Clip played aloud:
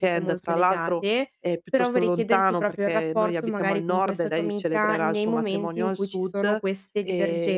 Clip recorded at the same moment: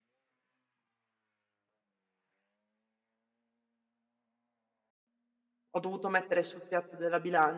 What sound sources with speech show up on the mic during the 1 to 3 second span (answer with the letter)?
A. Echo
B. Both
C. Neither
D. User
C